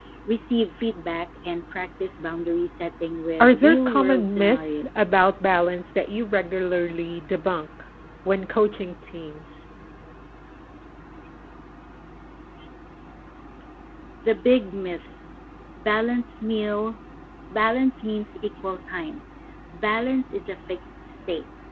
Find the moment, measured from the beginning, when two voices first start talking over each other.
3.4 s

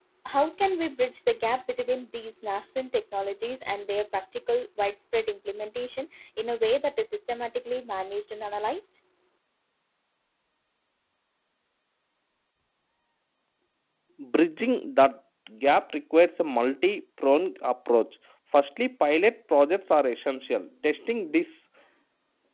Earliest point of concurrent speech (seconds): none

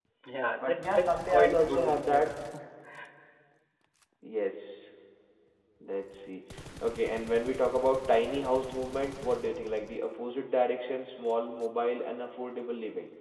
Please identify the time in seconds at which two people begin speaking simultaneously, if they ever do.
0.6 s

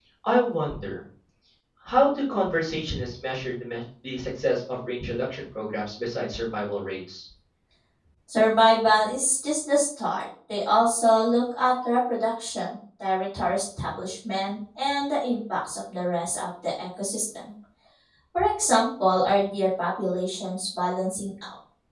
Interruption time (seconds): none

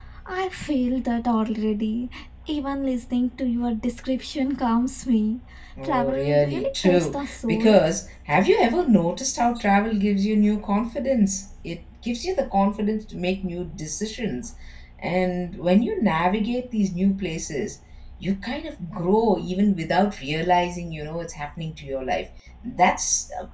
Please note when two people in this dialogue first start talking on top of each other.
5.8 s

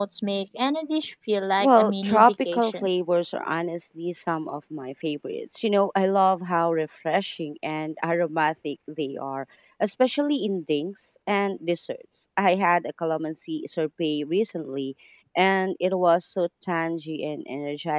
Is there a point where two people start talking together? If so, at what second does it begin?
1.6 s

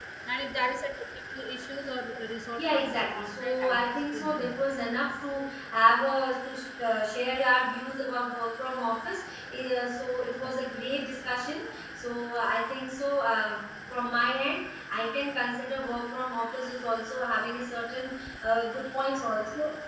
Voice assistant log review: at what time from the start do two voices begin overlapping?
2.5 s

